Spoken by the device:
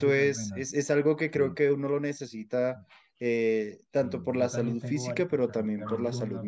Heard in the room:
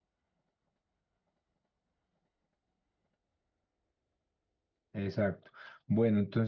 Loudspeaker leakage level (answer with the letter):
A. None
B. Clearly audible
A